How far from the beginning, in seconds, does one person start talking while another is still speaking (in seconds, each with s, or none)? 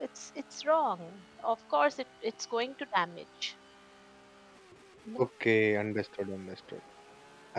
none